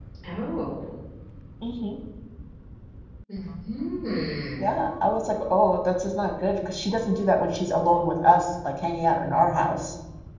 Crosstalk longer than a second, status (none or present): none